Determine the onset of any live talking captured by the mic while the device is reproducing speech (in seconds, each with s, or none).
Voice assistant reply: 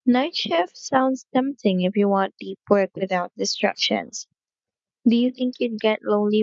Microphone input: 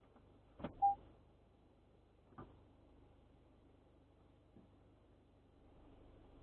none